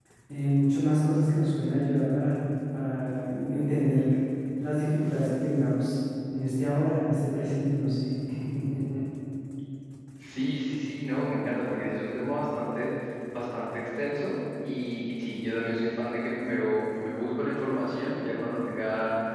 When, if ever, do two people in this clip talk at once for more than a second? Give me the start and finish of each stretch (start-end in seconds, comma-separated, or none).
none